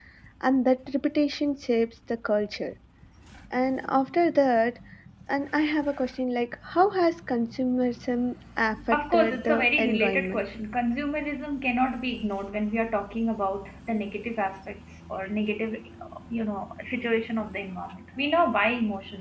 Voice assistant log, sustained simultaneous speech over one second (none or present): present